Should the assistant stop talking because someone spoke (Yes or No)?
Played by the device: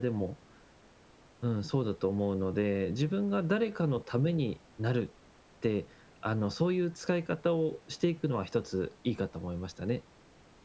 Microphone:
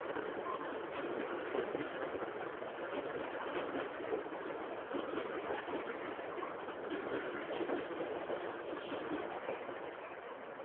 No